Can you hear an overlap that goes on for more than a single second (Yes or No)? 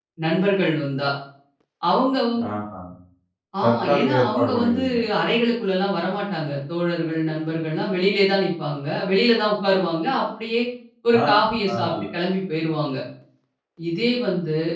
Yes